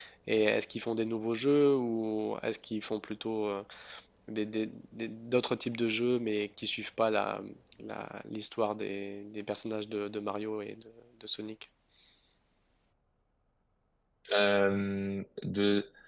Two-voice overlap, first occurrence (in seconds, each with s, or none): none